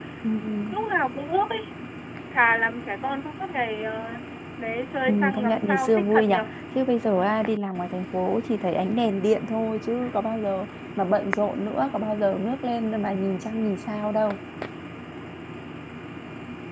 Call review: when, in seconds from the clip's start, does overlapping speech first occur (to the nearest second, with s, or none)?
5 s